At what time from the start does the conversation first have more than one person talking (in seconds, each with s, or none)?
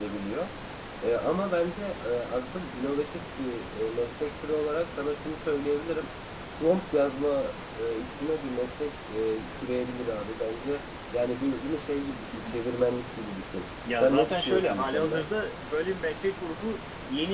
13.9 s